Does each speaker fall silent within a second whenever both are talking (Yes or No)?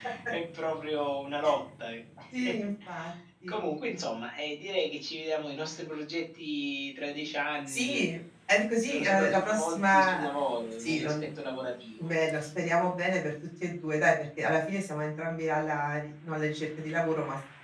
No